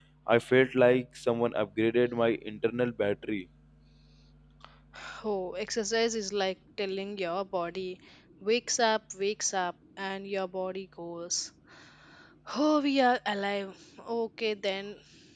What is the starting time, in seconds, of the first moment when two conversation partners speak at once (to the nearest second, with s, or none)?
none